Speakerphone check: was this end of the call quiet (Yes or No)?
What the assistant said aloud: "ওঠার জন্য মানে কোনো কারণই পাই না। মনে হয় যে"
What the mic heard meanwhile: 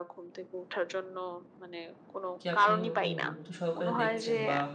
No